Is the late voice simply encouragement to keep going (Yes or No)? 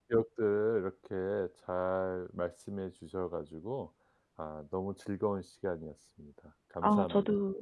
No